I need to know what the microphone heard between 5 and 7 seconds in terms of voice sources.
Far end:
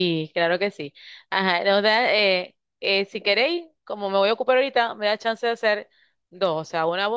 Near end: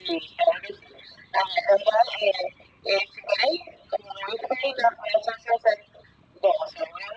echo only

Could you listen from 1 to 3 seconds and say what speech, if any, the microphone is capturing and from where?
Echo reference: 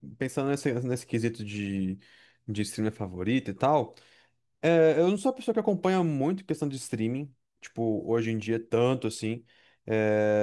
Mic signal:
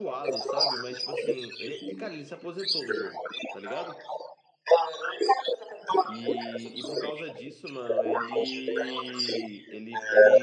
both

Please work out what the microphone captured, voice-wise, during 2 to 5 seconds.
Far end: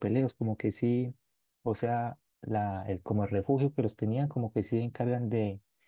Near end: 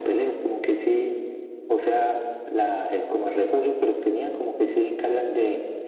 echo only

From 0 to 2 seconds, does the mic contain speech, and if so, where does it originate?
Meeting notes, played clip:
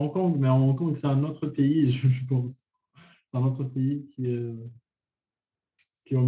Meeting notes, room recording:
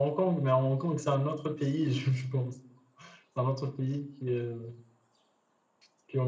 echo only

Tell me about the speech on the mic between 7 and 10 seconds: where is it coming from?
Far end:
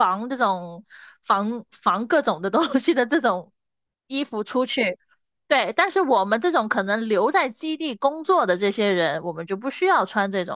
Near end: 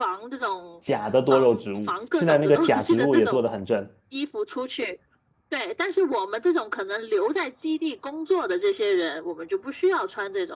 echo only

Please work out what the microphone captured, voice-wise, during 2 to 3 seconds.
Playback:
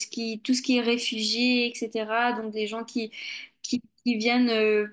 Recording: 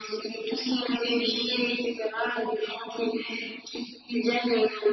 echo only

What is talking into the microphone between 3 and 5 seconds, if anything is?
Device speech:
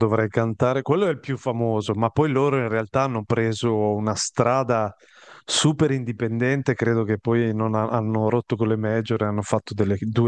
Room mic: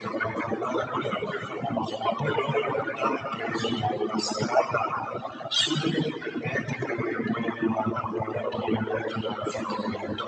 echo only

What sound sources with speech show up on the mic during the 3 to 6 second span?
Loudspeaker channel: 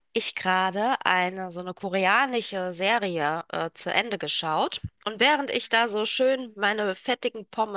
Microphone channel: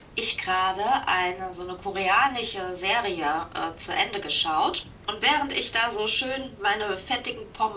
echo only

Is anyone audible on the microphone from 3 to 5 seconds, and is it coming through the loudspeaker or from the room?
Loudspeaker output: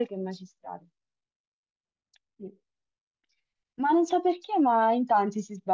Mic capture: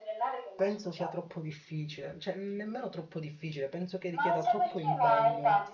both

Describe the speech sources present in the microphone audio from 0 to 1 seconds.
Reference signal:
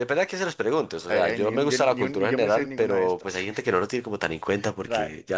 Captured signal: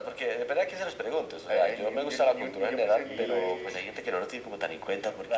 echo only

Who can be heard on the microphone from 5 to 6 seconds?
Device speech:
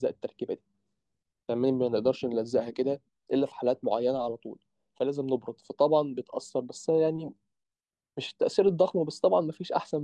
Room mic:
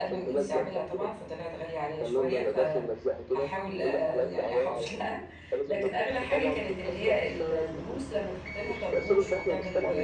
both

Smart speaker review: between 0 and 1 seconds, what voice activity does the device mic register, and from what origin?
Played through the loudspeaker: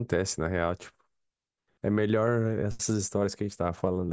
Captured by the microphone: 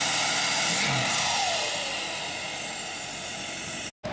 neither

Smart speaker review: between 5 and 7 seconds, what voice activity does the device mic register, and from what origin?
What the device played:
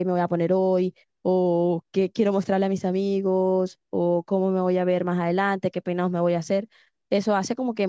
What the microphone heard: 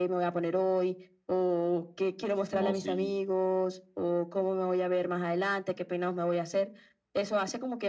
echo only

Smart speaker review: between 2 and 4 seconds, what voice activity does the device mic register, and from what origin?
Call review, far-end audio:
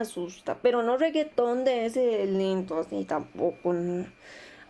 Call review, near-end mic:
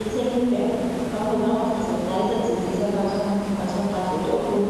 user only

